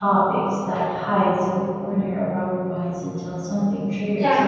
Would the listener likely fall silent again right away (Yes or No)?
No